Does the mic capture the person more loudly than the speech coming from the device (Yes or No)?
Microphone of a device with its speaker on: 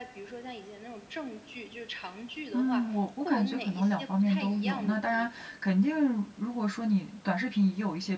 Yes